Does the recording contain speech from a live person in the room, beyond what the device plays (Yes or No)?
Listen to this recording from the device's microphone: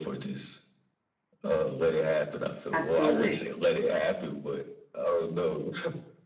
Yes